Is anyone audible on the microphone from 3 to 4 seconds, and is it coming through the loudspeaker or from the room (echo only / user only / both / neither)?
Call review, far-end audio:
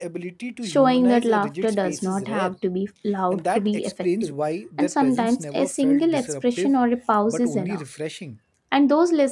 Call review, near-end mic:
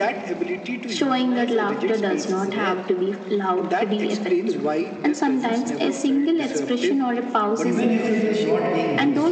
echo only